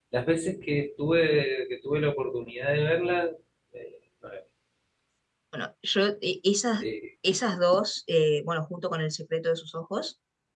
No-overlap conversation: Yes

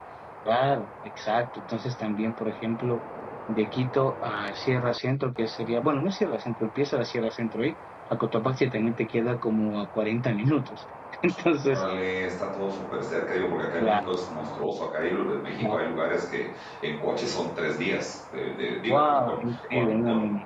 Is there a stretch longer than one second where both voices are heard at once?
Yes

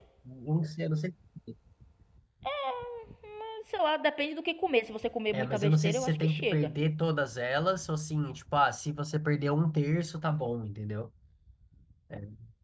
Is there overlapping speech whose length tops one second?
Yes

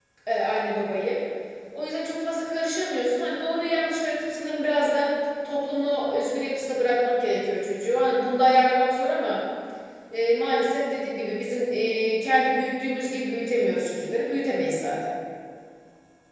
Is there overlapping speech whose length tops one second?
No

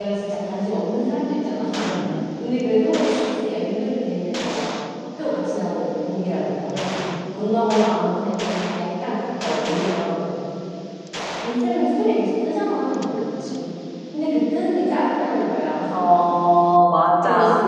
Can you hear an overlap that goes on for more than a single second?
No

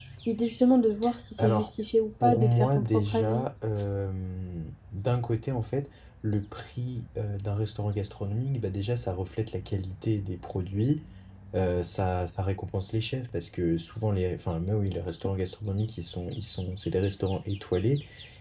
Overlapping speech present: Yes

